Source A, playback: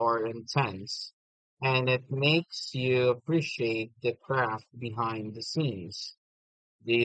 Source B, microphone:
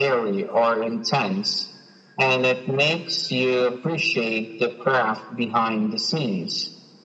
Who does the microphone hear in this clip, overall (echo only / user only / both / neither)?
echo only